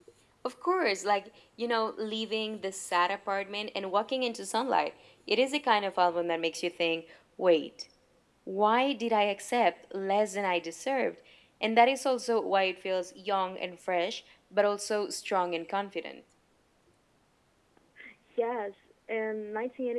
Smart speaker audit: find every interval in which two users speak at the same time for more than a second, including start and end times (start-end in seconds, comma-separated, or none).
none